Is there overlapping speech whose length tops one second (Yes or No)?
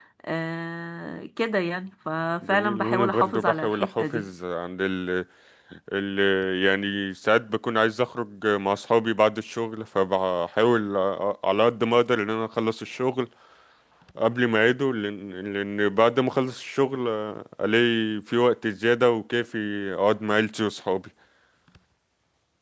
Yes